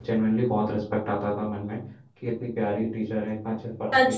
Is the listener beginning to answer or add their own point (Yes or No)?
Yes